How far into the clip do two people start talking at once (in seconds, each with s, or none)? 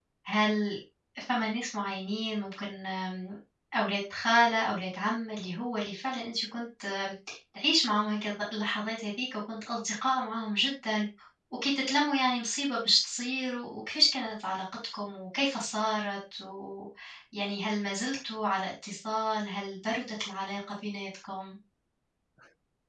none